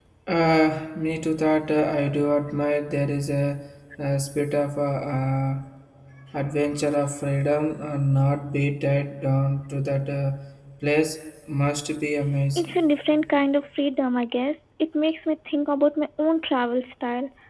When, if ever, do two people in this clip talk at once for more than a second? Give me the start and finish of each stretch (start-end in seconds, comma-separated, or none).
none